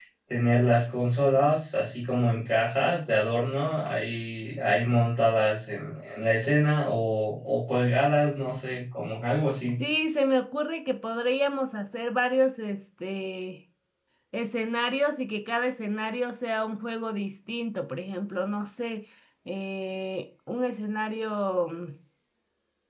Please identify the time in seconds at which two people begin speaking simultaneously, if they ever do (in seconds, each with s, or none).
none